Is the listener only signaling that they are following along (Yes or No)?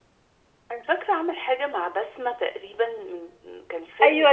No